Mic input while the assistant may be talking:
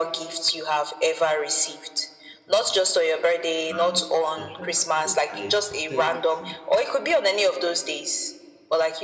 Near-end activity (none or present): present